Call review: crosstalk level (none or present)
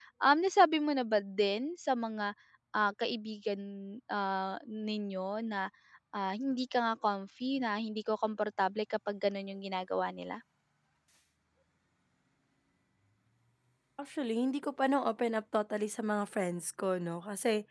none